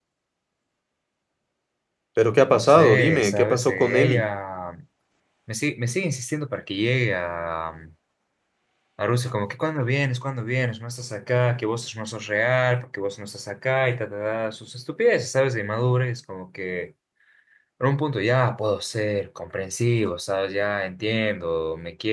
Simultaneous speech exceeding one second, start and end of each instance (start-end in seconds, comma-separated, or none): 2.5-4.2